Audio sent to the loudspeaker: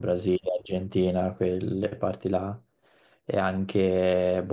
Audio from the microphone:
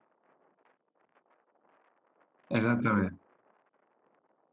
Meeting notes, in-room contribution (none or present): present